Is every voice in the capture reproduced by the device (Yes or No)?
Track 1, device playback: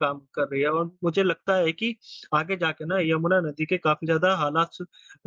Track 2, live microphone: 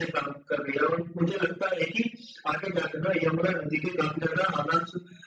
Yes